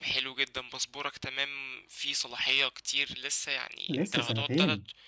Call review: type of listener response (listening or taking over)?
listening